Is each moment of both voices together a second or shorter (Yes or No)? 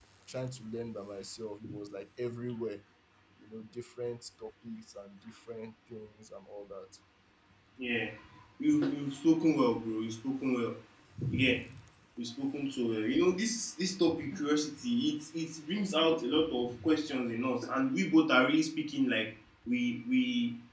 Yes